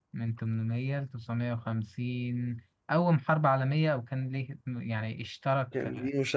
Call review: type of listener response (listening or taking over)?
taking over